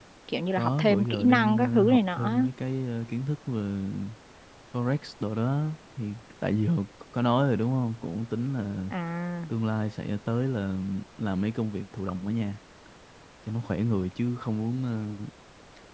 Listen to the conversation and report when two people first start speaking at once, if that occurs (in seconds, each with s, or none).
0.6 s